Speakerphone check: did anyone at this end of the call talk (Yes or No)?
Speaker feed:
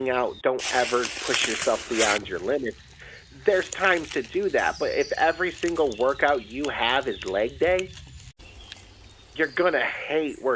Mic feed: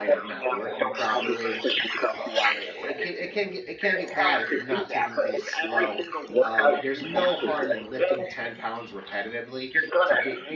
Yes